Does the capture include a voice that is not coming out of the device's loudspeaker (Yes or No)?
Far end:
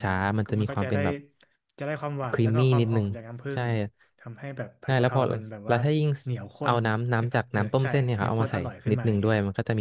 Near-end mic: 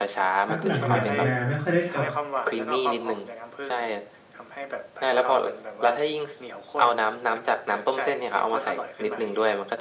Yes